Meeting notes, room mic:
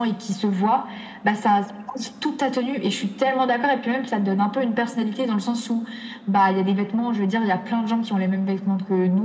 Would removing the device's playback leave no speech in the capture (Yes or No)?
Yes